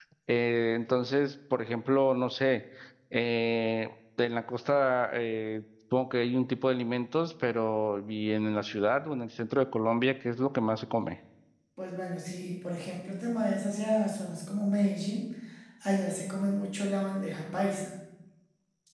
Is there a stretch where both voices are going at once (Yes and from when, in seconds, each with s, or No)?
No